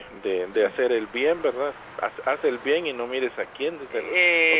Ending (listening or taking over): taking over